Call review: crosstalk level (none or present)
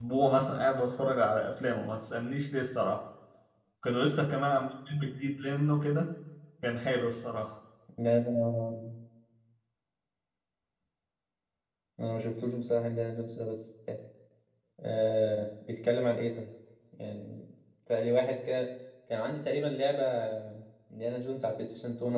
none